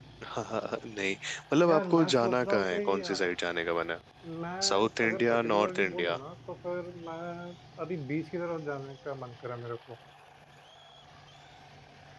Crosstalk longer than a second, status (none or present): present